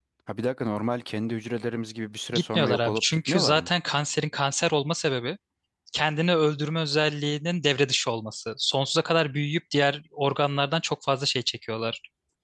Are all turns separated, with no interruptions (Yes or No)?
No